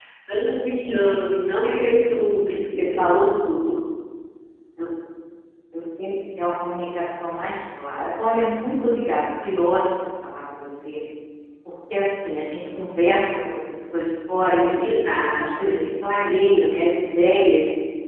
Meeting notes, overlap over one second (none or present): none